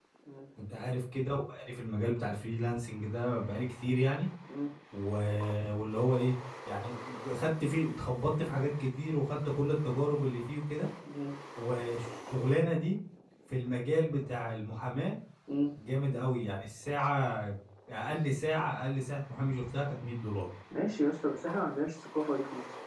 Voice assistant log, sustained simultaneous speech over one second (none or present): none